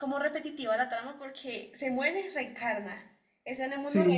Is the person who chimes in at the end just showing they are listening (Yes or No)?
No